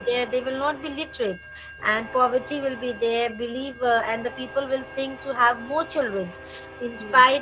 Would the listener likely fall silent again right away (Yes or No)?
Yes